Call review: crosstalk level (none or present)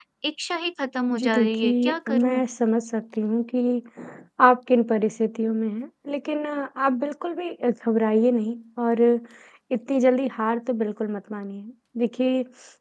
present